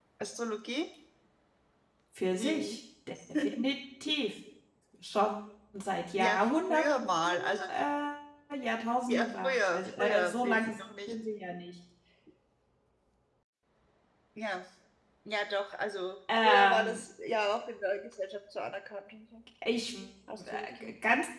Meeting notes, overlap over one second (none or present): present